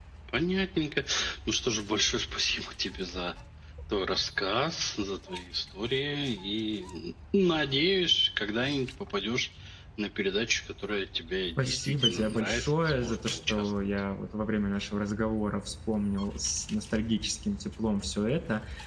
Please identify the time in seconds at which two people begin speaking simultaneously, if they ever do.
11.6 s

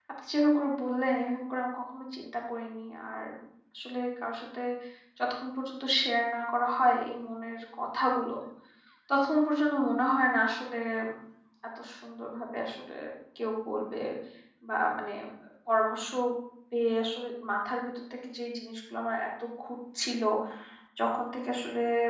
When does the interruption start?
none

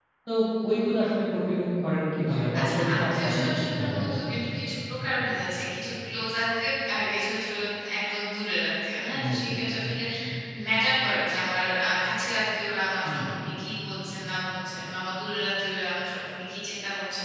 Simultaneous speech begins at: 2.6 s

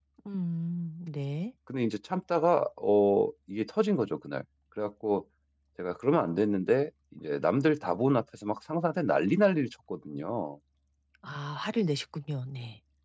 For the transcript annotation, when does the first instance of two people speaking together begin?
none

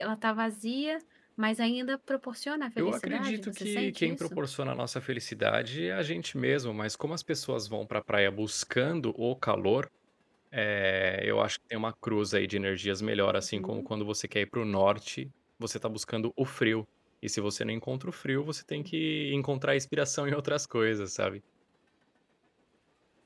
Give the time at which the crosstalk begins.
2.8 s

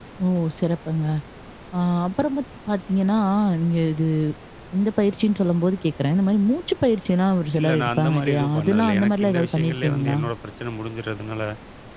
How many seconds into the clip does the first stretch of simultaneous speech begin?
7.5 s

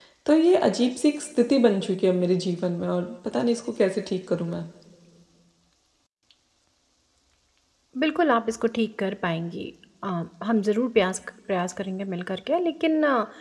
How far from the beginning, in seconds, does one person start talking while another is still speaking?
none

